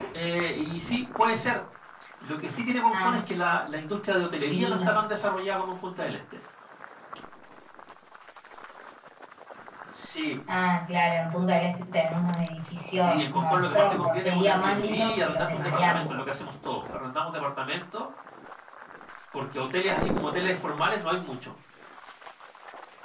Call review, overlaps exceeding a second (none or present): present